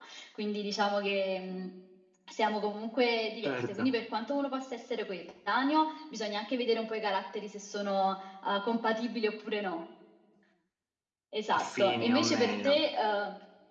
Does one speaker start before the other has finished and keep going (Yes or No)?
Yes